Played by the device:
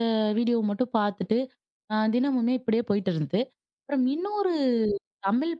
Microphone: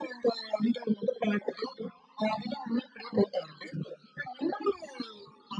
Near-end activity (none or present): none